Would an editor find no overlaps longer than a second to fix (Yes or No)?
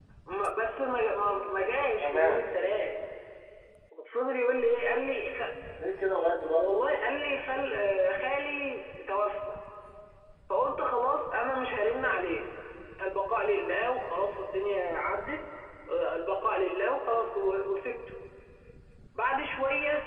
Yes